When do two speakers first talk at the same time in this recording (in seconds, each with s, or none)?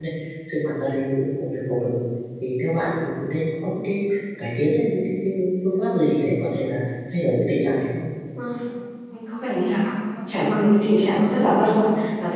none